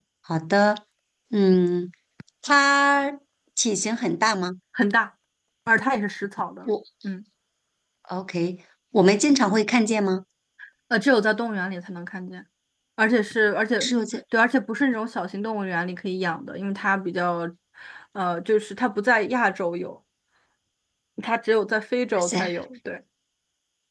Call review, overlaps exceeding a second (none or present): none